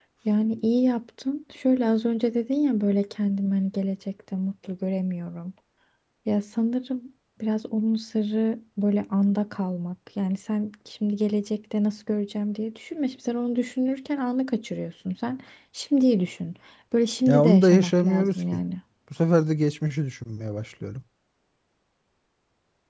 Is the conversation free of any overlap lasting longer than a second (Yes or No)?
No